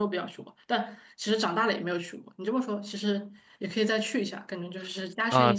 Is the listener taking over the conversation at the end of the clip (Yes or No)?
Yes